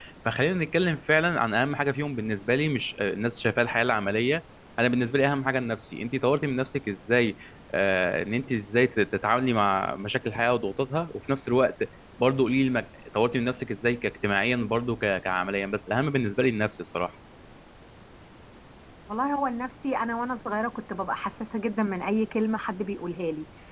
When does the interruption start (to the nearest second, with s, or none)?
none